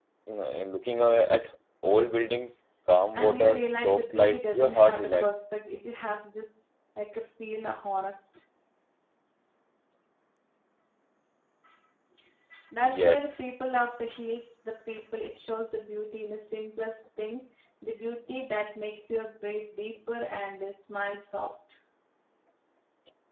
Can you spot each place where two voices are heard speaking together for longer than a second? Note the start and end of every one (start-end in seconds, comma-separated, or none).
3.2-5.3